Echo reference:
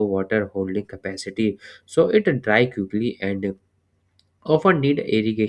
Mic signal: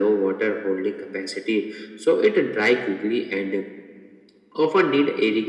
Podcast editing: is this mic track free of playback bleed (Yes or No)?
No